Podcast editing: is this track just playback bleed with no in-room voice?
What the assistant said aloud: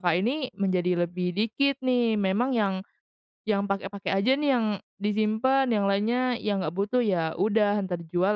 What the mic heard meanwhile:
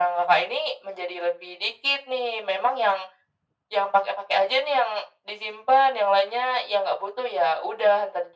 Yes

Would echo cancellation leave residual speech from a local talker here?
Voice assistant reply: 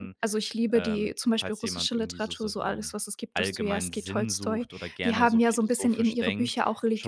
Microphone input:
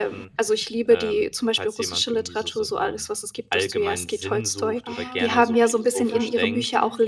Yes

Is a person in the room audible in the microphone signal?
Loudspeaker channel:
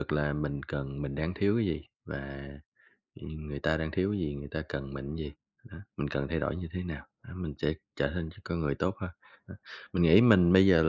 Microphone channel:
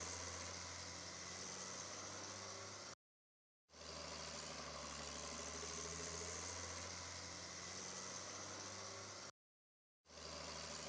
No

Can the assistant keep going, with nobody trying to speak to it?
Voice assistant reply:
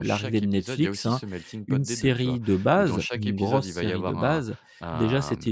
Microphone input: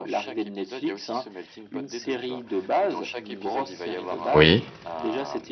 No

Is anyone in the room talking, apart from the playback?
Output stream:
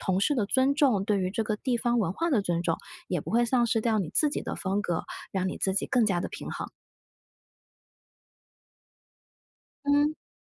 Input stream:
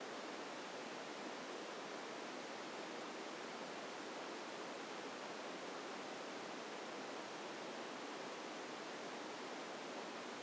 No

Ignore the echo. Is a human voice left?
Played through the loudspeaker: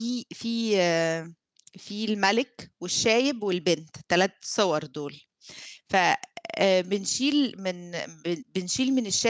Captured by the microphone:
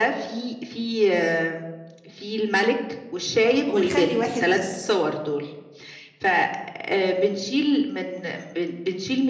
Yes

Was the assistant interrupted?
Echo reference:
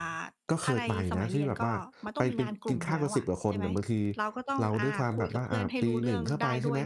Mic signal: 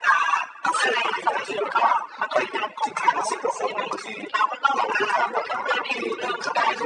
No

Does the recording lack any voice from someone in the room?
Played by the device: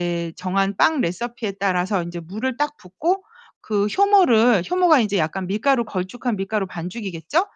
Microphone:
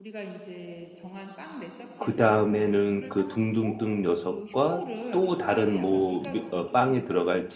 No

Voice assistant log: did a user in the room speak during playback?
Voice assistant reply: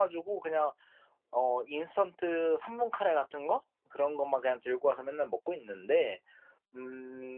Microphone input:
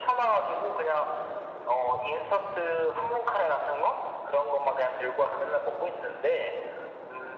No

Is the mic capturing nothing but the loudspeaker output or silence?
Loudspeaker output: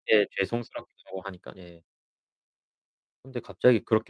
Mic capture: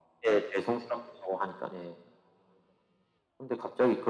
Yes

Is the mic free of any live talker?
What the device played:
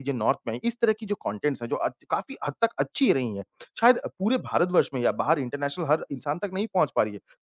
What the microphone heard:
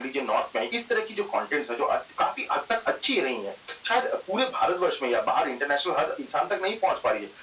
Yes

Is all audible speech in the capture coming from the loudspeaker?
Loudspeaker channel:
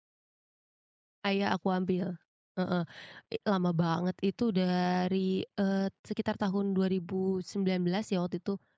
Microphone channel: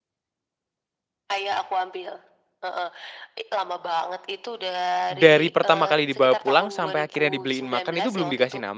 No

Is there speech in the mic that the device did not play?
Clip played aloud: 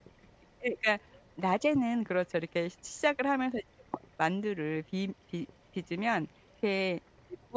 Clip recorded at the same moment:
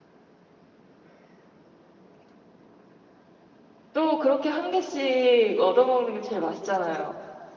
Yes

